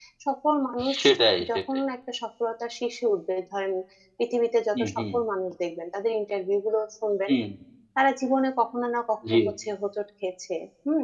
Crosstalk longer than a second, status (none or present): none